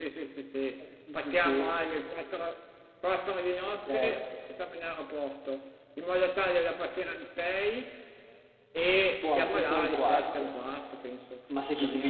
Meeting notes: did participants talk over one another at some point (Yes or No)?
Yes